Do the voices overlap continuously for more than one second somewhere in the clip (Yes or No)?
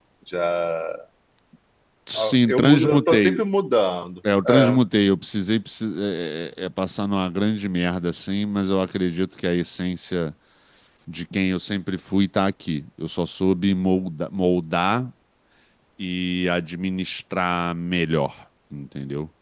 Yes